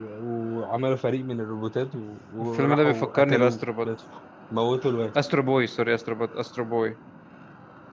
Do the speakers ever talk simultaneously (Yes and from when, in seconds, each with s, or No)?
Yes, from 2.5 s